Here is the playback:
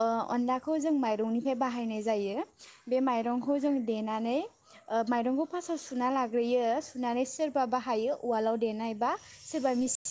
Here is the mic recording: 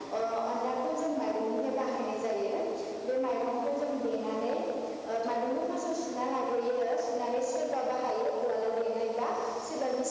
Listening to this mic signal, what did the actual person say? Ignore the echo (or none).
none